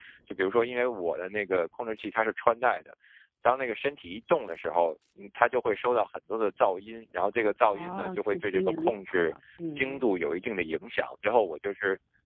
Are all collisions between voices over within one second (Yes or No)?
No